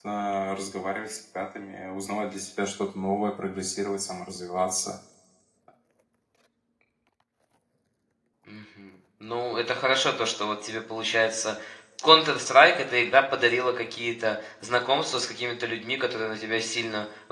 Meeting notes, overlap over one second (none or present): none